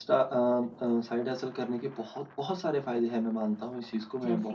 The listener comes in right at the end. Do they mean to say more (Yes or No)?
No